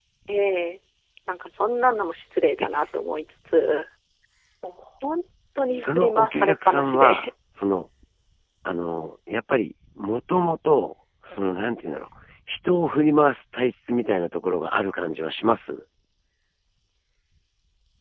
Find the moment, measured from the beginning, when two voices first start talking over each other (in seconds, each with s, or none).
5.8 s